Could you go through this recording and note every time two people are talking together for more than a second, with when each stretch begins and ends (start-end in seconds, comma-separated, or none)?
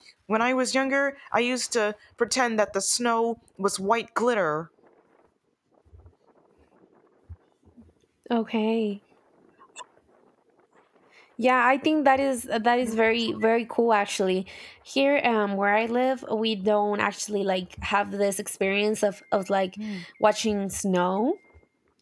none